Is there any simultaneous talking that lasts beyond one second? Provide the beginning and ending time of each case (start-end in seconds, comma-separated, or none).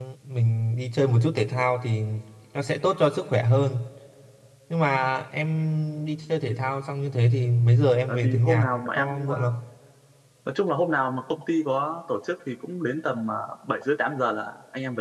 8.1-9.5